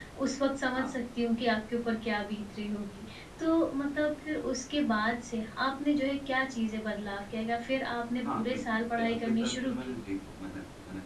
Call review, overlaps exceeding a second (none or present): present